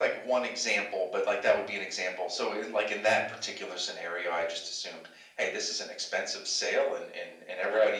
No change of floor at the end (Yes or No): Yes